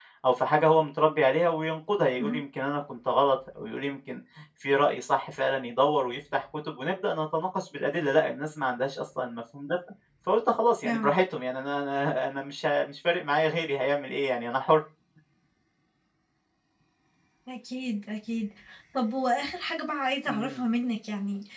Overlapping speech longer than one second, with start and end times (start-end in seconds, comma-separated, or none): none